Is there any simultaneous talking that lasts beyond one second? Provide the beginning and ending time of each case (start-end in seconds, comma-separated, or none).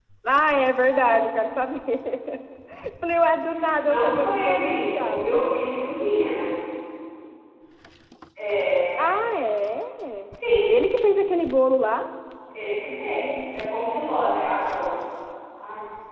3.8-5.4